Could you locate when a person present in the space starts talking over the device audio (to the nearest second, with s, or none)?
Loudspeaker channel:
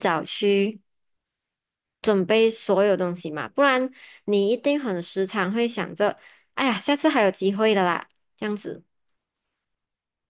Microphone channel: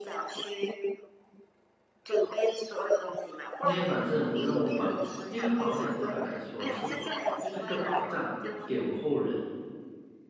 4 s